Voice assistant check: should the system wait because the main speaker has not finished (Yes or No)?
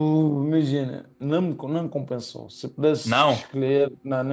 Yes